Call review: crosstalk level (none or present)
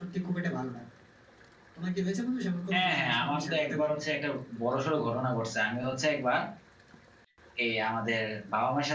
present